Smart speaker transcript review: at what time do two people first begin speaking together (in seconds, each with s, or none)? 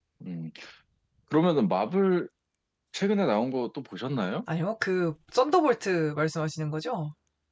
none